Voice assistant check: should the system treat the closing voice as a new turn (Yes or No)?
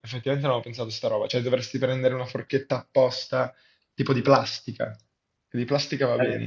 Yes